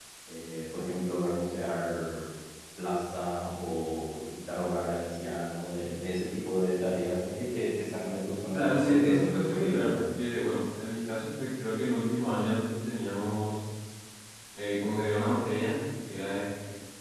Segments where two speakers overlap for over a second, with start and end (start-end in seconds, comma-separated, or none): 8.5-10.1